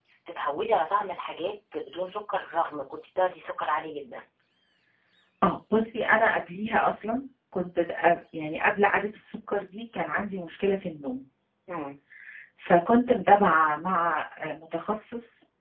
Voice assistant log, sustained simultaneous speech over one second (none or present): none